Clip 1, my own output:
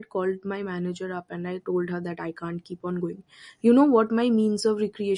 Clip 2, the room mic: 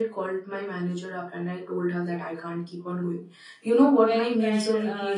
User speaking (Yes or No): Yes